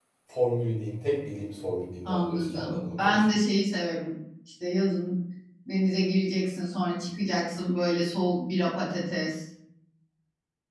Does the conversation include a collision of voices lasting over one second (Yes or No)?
Yes